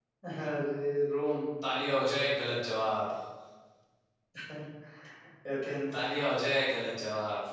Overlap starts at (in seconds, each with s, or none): none